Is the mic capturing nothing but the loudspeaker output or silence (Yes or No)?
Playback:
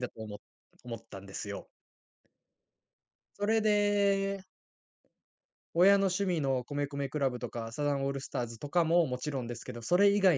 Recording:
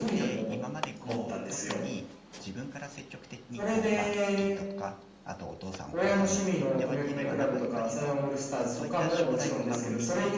No